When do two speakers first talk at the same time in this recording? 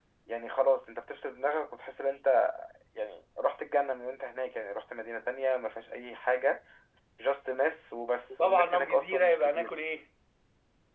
8.3 s

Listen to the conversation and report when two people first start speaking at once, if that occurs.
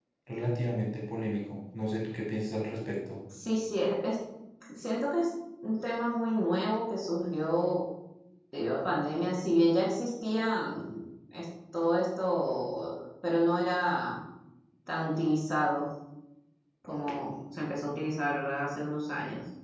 none

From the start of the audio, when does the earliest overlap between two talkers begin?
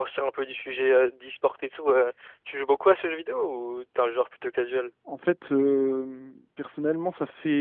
none

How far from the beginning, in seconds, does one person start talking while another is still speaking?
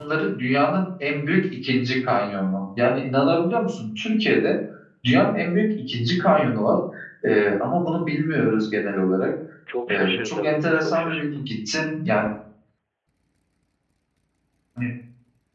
9.9 s

